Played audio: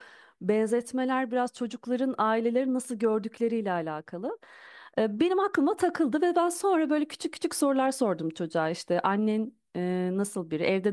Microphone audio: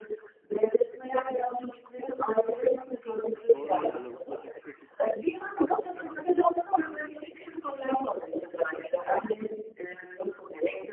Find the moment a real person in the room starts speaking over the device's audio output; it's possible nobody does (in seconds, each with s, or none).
3.3 s